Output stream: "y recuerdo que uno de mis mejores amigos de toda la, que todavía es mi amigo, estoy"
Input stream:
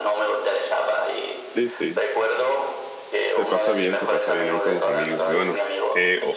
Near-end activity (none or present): present